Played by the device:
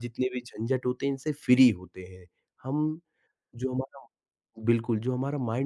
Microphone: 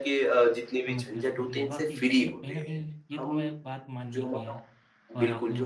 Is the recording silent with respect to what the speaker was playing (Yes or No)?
No